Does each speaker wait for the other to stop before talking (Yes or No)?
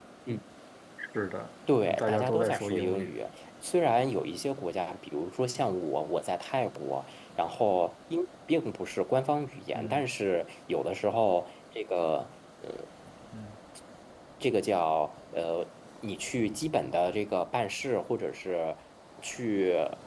No